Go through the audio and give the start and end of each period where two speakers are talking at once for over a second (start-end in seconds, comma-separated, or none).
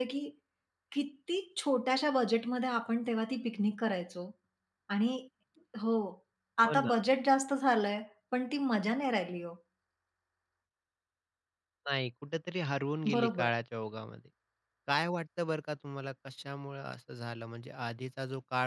none